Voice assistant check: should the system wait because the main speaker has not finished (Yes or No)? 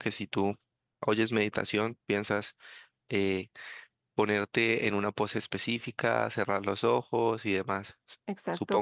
No